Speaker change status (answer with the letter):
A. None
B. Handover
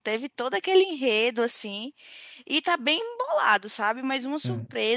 A